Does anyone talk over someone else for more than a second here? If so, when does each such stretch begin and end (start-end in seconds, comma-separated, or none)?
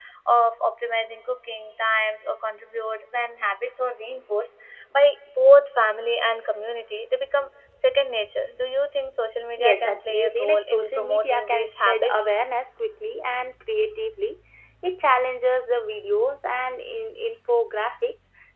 9.6-12.3